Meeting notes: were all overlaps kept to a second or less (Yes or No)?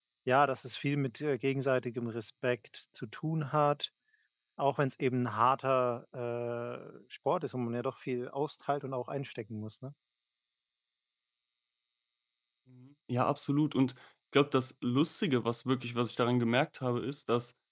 Yes